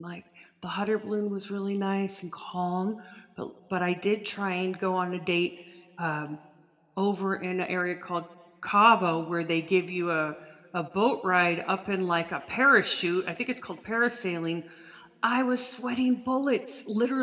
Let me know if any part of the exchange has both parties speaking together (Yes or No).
No